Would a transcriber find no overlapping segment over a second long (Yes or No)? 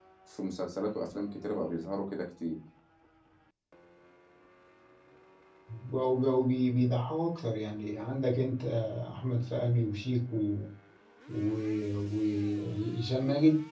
Yes